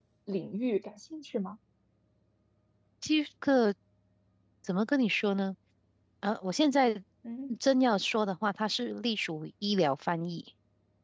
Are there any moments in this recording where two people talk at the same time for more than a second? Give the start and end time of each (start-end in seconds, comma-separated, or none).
none